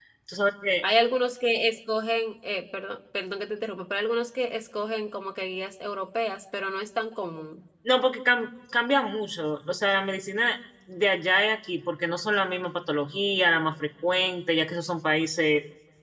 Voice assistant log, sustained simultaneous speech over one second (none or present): none